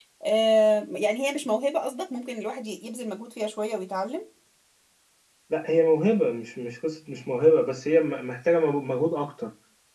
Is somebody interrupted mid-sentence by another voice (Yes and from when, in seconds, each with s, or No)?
No